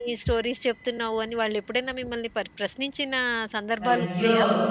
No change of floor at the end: No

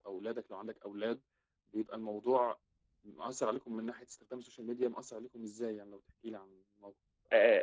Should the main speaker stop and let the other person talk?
Yes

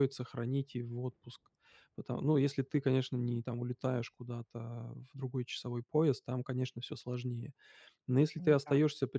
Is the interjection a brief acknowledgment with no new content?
Yes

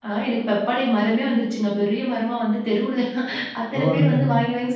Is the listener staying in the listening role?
Yes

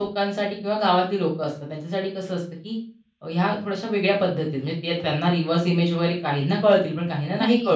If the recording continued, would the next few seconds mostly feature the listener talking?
No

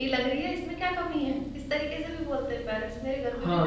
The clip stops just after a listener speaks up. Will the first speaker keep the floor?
No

